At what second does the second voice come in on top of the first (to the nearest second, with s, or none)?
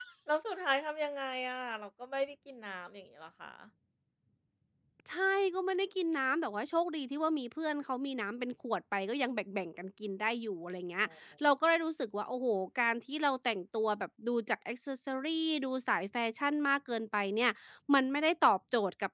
none